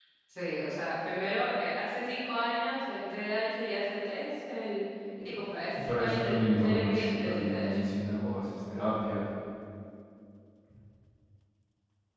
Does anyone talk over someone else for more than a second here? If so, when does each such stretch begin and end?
5.7-7.8

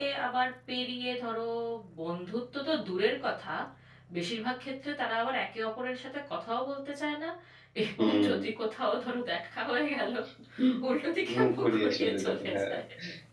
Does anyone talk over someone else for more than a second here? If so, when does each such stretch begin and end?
11.4-12.7

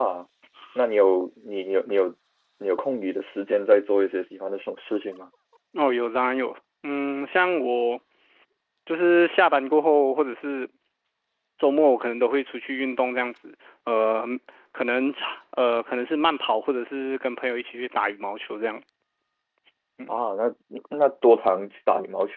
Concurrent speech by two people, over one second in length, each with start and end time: none

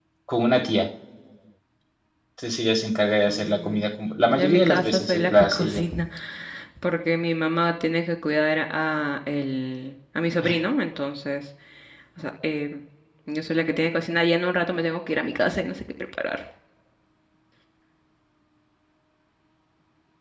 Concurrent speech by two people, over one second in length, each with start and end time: 4.3-5.8

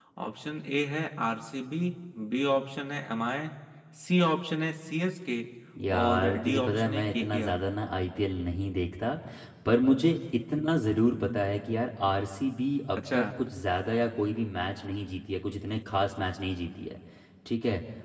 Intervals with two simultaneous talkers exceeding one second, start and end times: 6.0-7.7

